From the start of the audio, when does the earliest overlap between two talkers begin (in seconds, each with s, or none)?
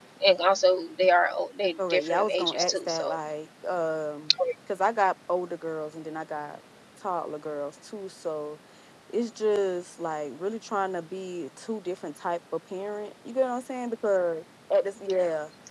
1.8 s